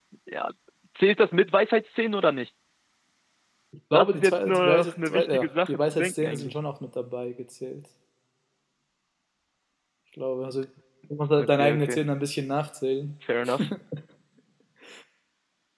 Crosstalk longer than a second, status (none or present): present